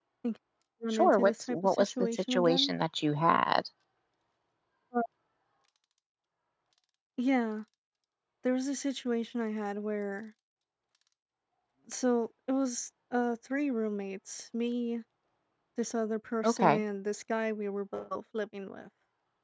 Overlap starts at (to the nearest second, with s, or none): 1 s